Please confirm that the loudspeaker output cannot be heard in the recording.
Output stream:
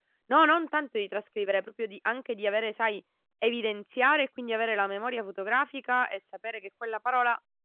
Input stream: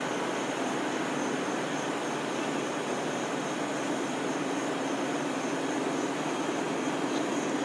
Yes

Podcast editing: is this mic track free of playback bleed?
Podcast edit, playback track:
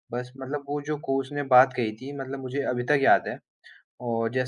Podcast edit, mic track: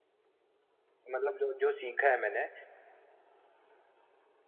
Yes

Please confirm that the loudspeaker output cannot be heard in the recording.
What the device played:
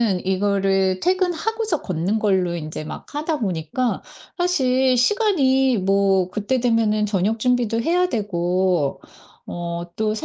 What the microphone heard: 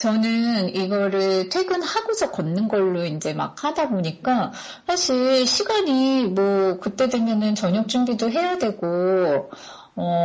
No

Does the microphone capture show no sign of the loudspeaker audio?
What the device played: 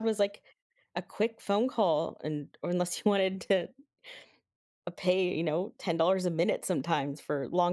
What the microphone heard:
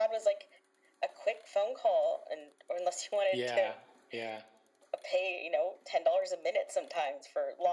No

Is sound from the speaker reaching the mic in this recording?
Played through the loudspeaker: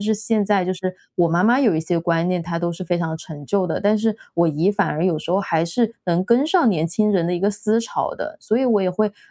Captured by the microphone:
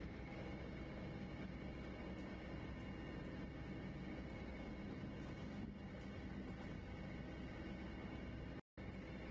No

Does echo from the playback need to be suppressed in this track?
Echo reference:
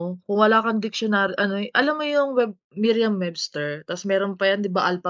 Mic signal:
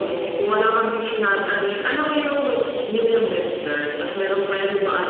Yes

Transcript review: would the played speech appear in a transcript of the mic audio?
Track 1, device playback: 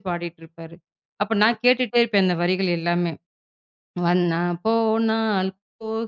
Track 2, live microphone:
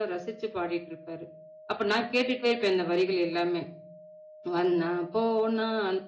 Yes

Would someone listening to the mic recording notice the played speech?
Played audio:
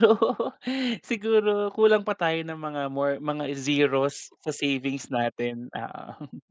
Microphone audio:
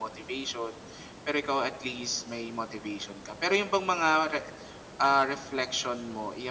No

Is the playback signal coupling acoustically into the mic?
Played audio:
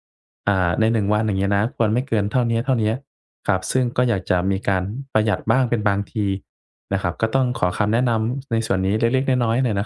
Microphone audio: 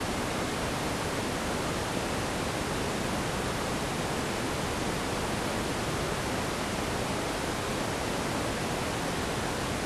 No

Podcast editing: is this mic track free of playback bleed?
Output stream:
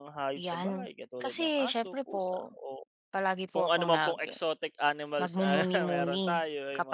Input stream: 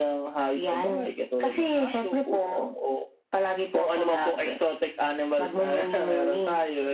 No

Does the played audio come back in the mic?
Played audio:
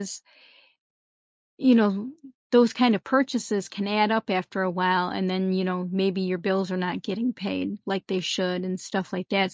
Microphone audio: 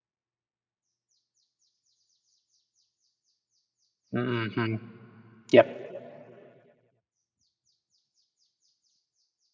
No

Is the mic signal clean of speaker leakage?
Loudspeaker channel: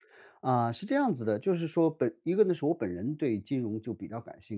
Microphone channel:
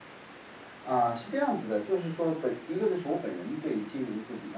No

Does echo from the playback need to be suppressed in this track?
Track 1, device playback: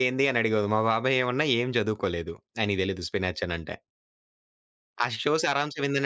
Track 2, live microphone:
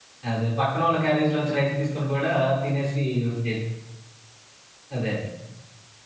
No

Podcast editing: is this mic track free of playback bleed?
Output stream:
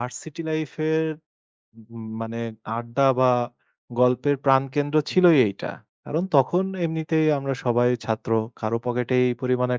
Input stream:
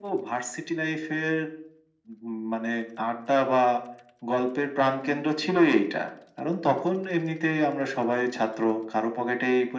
No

